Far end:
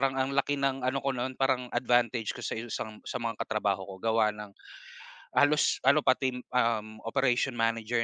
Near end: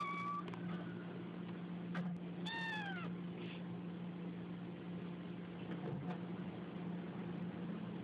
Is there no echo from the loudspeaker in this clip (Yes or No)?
Yes